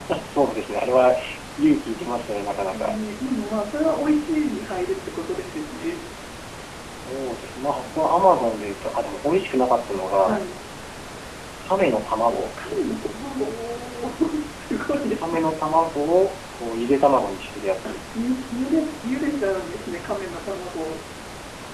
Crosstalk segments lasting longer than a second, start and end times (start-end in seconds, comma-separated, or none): none